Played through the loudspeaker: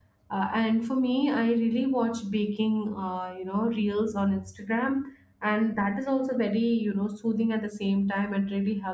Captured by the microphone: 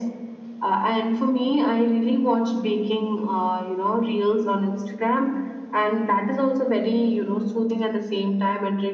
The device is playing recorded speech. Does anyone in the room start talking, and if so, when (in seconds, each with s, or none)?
none